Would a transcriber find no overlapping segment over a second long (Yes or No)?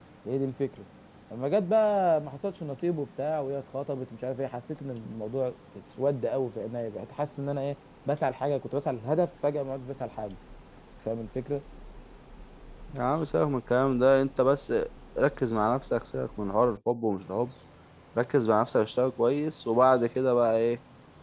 Yes